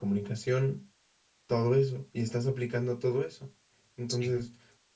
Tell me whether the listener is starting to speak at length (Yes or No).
No